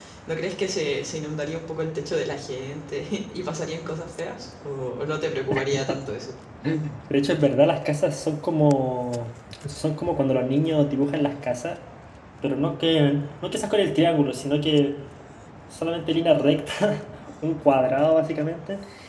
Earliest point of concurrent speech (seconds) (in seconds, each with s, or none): none